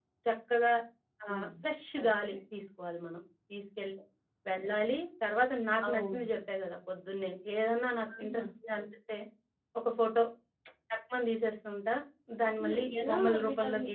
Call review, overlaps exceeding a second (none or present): present